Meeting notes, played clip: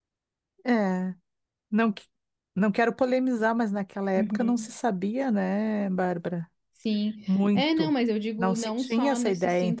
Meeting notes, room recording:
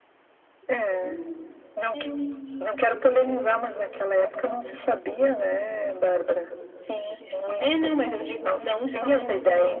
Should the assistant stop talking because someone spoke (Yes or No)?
Yes